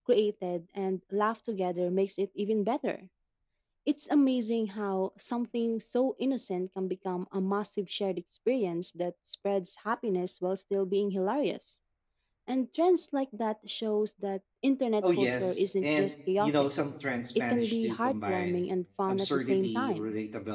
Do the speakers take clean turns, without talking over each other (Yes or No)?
No